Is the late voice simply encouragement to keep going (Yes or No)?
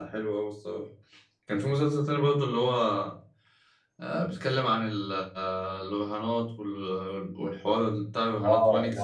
No